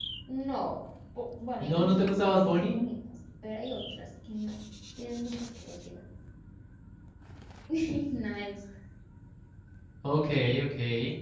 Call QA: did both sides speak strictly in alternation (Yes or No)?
No